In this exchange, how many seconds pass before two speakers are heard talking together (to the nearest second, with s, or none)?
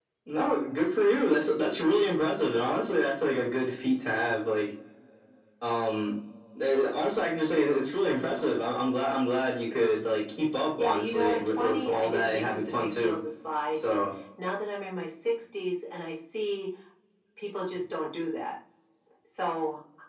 11 s